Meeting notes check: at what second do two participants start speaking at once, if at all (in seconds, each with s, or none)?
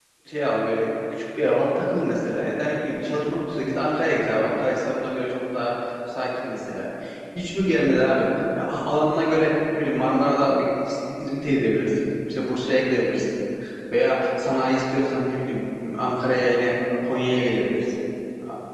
none